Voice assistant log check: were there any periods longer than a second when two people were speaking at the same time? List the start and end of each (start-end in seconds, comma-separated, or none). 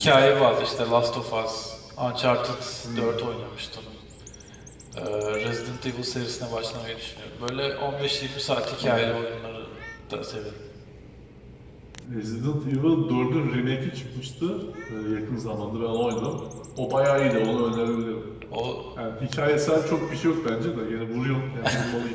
none